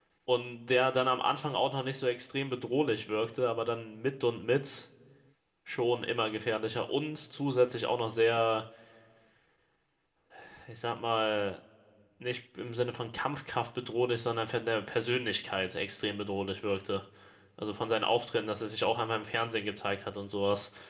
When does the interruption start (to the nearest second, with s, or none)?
none